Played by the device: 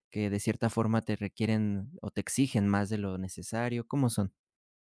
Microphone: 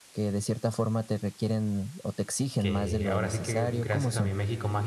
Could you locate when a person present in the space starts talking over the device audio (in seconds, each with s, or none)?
2.6 s